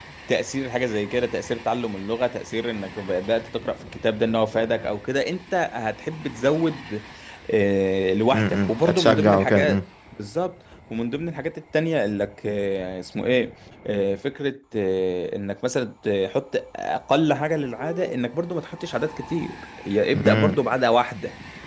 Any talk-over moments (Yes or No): Yes